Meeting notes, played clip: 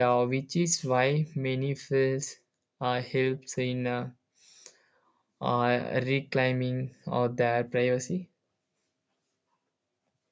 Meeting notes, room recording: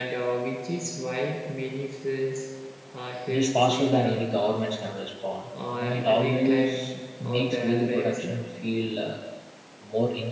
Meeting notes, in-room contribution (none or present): present